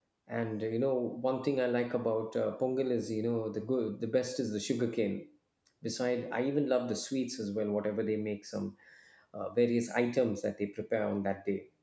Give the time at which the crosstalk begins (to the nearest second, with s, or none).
none